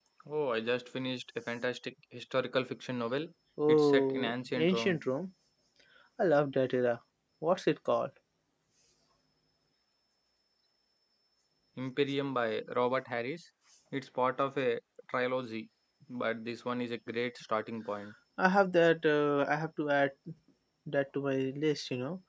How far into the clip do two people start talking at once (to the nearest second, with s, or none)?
4 s